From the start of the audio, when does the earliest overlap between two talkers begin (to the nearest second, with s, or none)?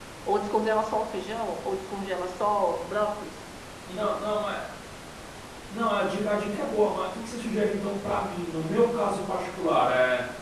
none